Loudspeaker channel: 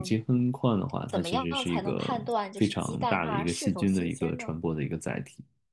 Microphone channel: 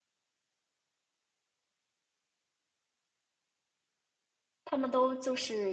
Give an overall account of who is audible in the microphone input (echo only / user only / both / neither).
user only